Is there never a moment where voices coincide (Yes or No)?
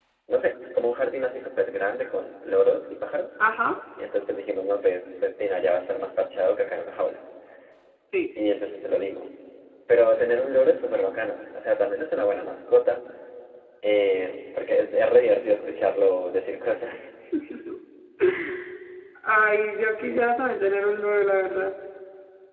Yes